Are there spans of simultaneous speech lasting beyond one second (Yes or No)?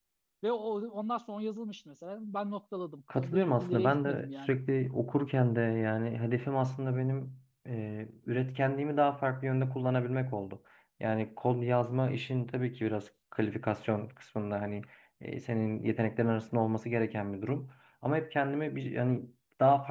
Yes